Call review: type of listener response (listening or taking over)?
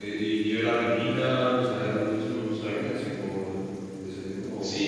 taking over